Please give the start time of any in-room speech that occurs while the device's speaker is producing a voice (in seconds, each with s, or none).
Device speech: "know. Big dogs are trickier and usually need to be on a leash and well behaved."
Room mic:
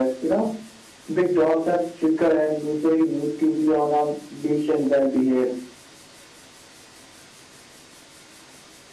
none